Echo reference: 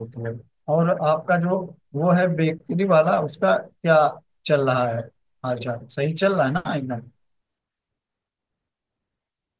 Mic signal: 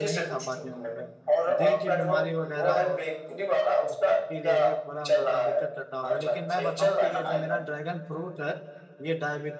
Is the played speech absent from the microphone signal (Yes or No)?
No